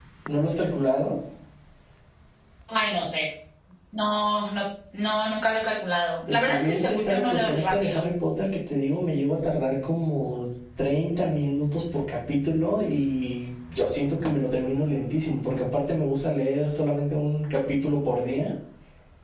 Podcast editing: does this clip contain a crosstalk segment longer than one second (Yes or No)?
Yes